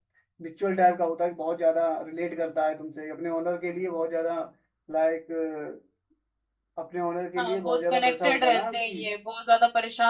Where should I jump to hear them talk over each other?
7.4 s

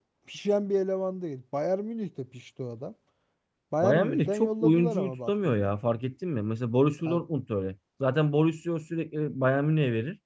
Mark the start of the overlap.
3.8 s

